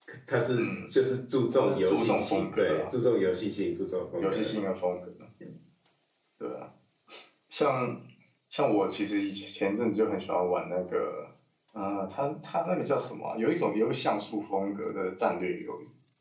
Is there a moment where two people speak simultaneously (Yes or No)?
Yes